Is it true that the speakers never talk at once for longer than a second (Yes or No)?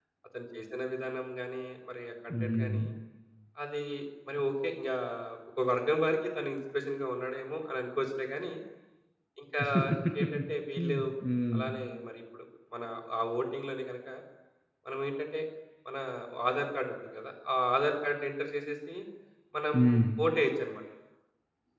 Yes